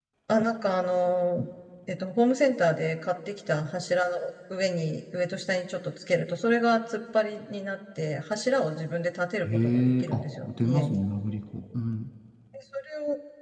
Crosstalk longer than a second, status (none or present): present